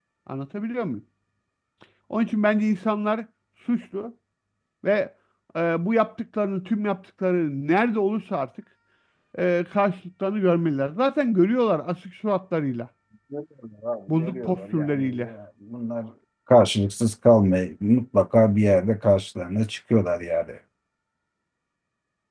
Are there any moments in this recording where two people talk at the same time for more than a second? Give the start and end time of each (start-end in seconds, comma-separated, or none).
14.1-15.3